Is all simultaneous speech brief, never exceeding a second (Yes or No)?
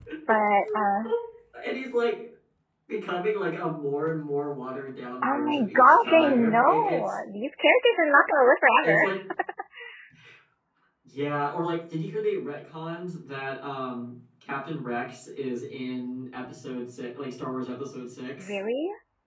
No